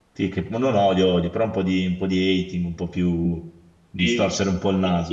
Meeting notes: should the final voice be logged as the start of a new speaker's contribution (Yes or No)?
Yes